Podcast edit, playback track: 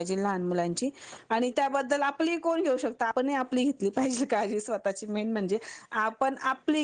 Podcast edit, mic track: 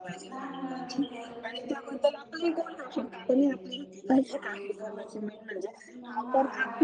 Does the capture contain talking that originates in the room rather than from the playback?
Yes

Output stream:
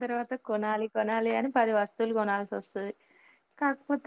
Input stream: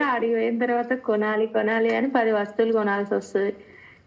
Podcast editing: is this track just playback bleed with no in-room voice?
Yes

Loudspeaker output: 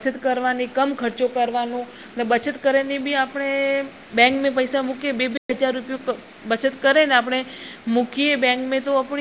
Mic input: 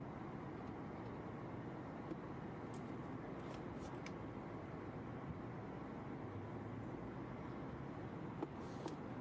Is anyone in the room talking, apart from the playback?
No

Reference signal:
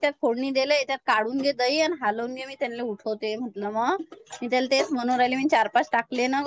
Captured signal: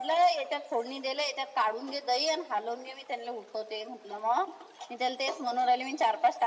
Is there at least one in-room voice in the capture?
No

